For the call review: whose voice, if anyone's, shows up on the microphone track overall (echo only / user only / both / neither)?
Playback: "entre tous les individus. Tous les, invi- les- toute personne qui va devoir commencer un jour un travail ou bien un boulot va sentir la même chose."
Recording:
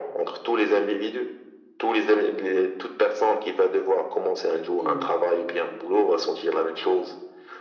both